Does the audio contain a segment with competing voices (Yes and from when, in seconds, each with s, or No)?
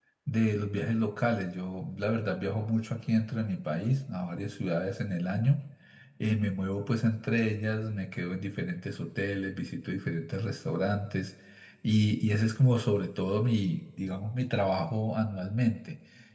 No